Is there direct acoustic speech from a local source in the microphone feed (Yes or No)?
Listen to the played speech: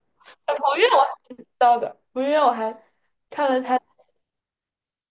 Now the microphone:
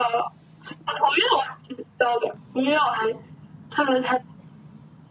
No